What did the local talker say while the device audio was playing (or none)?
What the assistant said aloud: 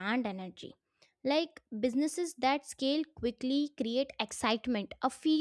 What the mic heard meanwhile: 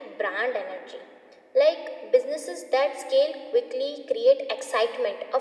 none